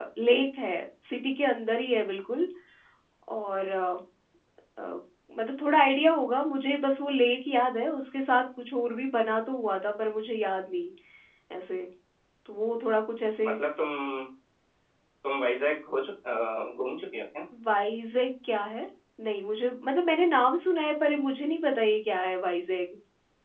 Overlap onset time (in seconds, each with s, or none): none